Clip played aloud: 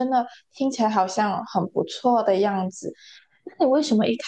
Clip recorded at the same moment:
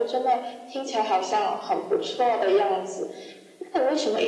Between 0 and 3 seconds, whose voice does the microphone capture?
echo only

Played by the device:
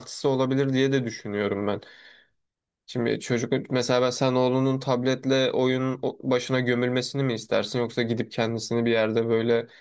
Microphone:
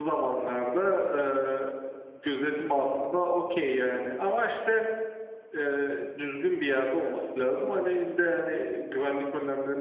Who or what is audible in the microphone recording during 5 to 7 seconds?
user only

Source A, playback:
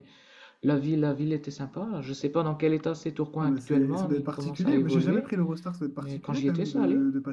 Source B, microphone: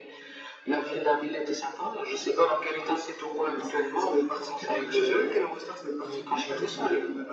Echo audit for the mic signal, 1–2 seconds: echo only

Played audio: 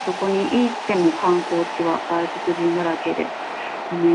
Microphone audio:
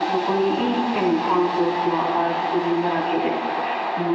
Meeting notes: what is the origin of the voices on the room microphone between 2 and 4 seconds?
echo only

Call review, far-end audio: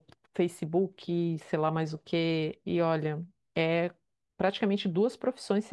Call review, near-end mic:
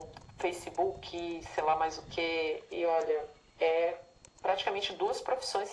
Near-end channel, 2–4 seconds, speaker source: echo only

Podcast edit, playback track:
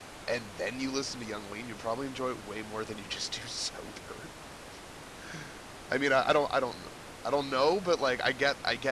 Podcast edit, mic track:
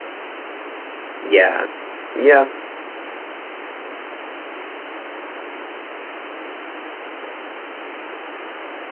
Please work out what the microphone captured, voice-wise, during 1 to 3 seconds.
user only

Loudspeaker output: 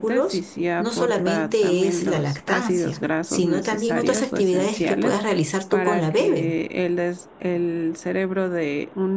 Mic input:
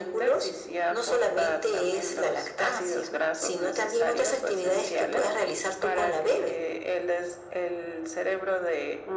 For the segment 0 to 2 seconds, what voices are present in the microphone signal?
echo only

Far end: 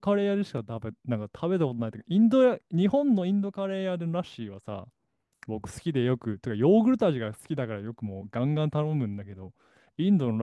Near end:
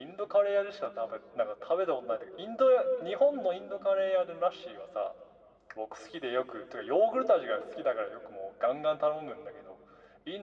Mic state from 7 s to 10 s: echo only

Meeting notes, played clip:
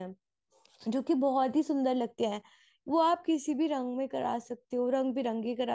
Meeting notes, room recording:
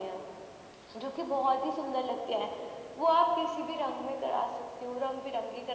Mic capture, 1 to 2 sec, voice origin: echo only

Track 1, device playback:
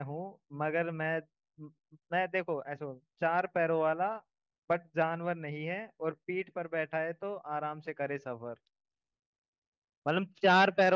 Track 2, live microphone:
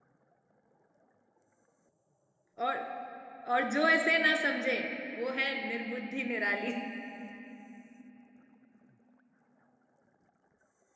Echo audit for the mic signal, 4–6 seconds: user only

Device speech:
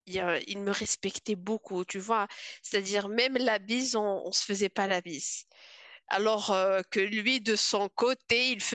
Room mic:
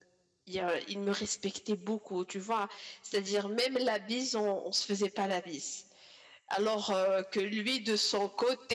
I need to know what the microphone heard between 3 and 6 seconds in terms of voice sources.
echo only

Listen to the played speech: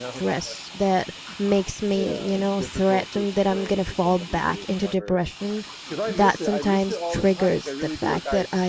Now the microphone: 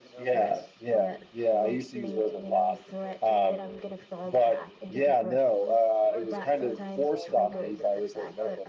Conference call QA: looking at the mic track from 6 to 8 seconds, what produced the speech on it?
both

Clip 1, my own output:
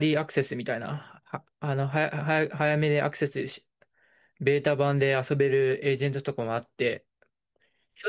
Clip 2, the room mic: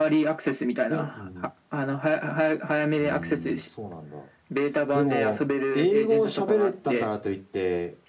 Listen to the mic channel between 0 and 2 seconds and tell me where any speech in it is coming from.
both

